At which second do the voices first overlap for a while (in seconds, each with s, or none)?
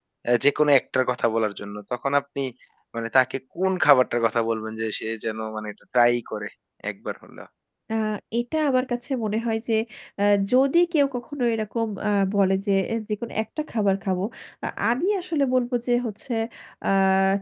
none